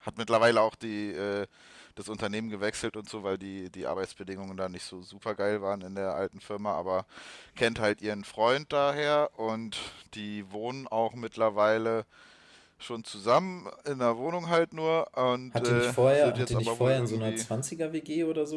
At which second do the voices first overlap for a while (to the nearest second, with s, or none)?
16 s